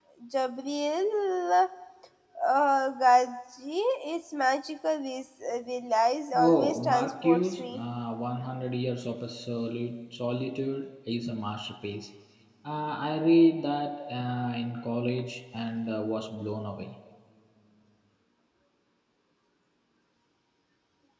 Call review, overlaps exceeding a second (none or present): present